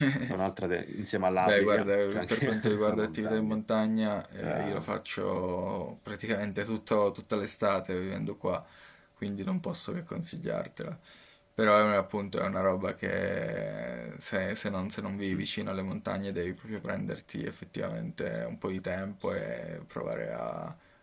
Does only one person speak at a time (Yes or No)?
No